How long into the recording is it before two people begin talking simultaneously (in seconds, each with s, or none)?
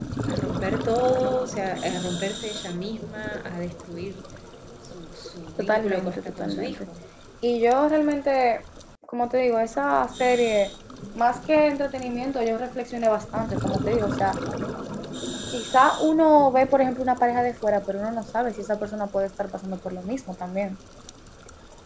5.6 s